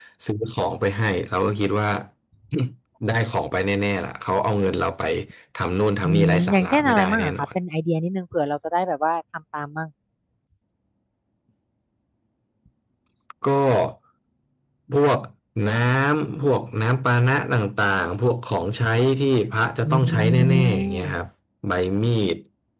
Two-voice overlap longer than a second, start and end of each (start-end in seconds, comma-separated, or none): 6.0-7.5, 19.9-21.1